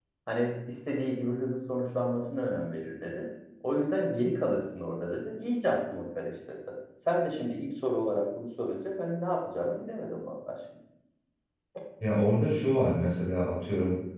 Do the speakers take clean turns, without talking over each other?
Yes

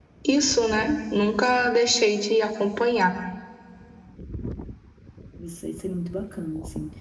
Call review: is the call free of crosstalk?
Yes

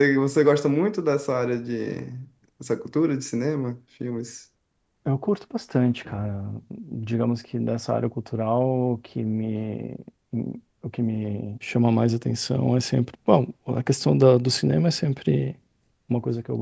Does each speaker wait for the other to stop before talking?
Yes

